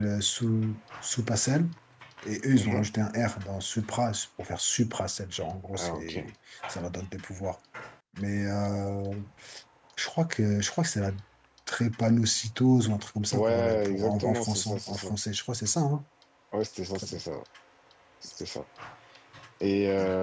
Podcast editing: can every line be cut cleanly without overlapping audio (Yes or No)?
No